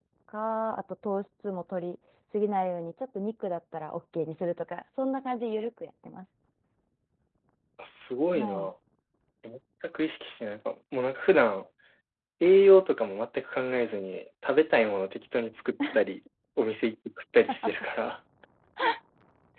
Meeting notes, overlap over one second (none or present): none